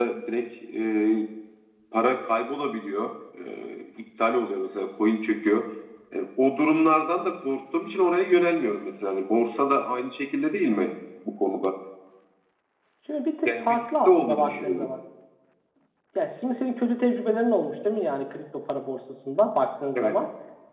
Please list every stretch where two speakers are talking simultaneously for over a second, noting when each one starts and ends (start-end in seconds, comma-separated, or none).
13.4-14.9